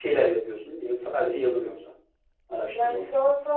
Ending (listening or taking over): taking over